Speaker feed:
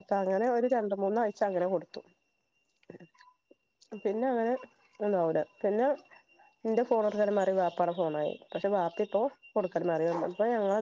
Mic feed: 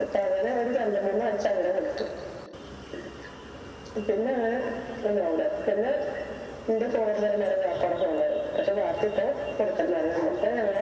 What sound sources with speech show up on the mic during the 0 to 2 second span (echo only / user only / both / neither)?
echo only